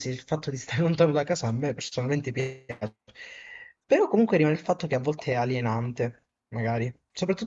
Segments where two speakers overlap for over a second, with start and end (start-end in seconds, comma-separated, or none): none